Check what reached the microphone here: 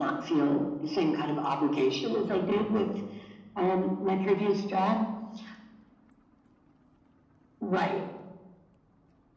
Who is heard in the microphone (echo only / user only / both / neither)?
echo only